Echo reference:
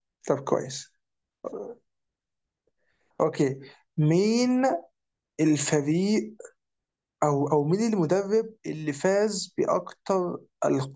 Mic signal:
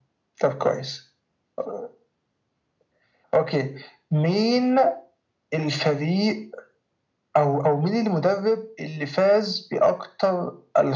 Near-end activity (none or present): none